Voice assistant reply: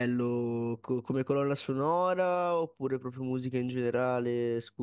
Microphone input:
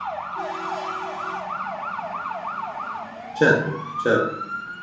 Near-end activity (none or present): present